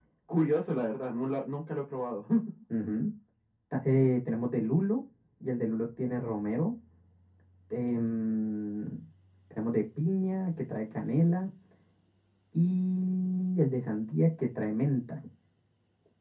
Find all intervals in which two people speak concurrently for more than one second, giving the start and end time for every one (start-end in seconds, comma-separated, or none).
none